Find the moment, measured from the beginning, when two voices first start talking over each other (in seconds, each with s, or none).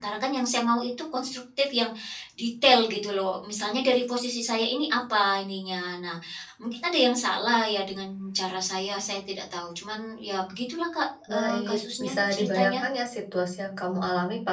11.3 s